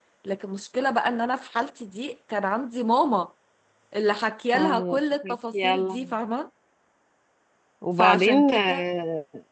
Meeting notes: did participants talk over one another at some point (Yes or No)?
Yes